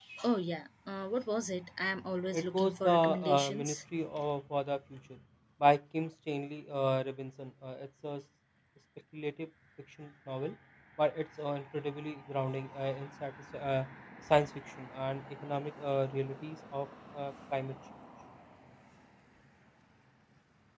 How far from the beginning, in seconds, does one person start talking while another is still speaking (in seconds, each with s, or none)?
2.3 s